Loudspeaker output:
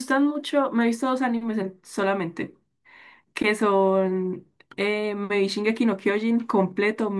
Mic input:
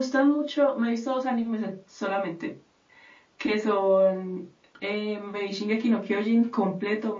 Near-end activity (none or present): none